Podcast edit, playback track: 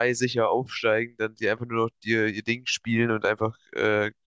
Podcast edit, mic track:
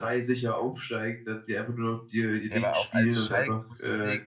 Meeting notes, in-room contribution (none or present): present